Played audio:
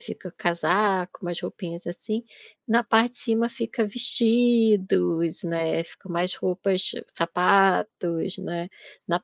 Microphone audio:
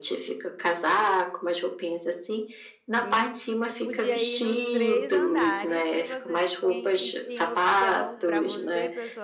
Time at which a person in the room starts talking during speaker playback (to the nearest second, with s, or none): 3 s